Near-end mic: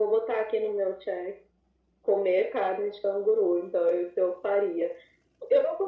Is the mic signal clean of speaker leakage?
No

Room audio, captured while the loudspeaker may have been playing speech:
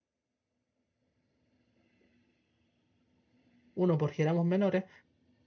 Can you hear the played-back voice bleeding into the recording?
No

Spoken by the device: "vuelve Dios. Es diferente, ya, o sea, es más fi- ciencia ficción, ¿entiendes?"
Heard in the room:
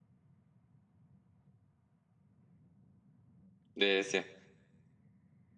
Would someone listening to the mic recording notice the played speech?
No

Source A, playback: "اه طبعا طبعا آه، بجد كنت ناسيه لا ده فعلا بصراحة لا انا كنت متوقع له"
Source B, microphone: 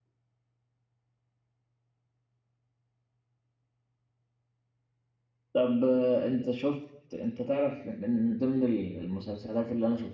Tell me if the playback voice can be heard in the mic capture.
No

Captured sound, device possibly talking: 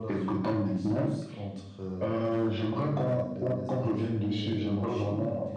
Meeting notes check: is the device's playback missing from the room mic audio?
No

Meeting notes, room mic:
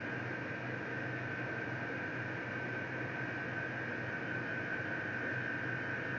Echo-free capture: Yes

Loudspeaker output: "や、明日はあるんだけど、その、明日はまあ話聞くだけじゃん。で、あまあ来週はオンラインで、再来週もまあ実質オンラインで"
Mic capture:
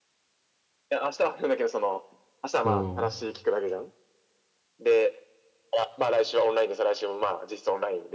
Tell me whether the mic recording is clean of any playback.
No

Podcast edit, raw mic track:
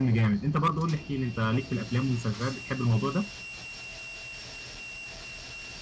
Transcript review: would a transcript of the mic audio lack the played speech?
Yes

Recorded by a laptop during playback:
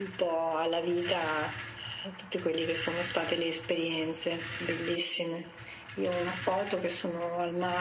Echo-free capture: No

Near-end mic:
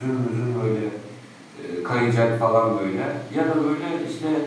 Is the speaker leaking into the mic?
No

